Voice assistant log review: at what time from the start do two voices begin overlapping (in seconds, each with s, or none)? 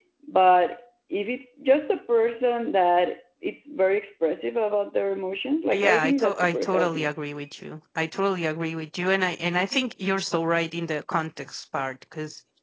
5.7 s